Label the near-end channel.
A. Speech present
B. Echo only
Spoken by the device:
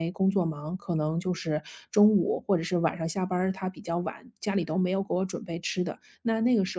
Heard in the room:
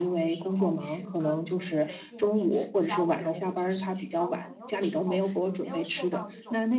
A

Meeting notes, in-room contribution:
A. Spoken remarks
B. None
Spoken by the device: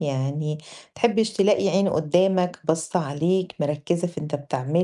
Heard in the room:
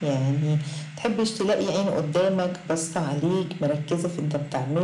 B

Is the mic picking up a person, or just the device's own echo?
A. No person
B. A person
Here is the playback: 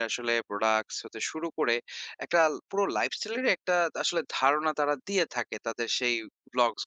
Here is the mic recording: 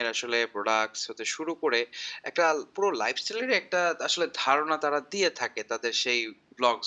A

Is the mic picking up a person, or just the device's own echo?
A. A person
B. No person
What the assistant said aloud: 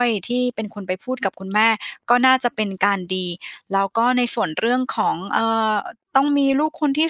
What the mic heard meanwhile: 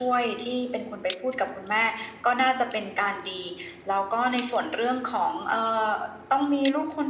B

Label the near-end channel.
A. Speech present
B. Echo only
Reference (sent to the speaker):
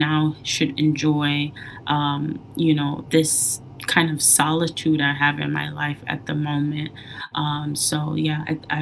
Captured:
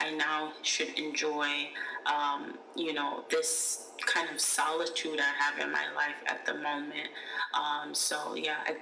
B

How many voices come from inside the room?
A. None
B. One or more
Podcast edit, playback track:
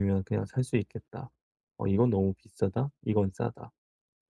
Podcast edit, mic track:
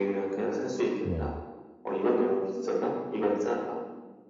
B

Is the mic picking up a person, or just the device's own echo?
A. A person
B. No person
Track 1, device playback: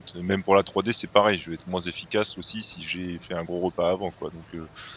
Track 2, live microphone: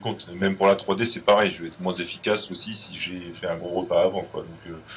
B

